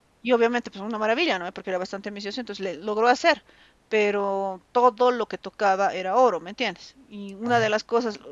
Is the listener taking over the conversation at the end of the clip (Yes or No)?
No